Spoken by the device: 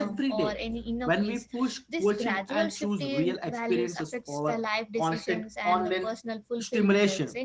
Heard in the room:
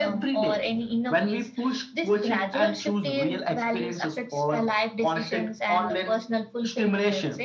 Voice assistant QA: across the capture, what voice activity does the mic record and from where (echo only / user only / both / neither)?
echo only